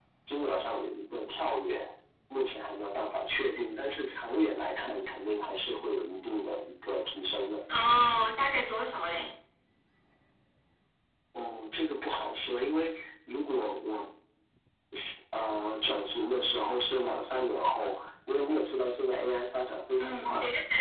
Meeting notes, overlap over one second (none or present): none